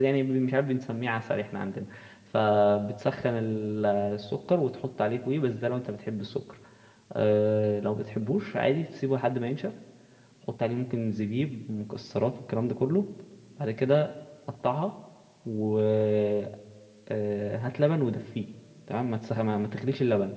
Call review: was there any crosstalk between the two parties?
No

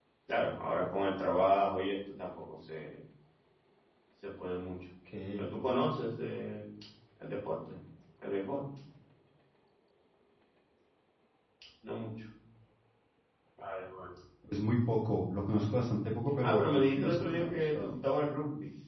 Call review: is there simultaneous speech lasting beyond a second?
Yes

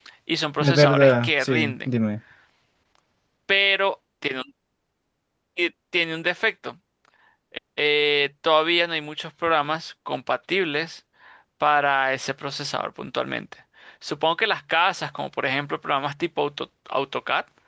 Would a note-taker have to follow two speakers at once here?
Yes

